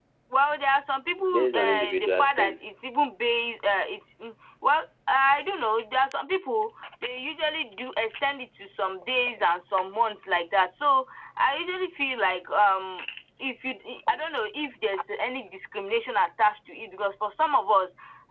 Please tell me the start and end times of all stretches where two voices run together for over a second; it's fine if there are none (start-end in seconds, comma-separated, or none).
1.2-2.6